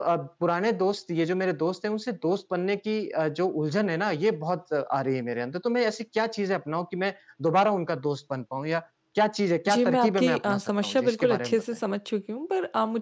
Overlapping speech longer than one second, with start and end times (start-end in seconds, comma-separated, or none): 9.7-11.6